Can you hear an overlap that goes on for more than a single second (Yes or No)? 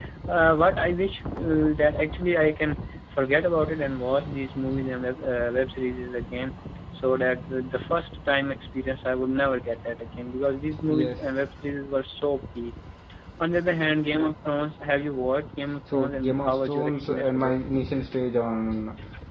Yes